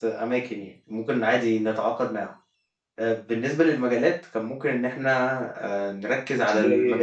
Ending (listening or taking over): listening